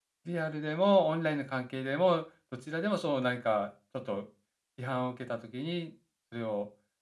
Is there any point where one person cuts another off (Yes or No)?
No